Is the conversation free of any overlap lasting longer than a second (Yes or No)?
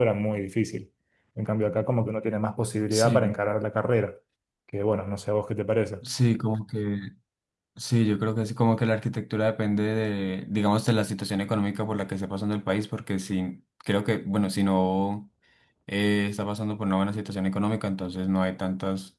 Yes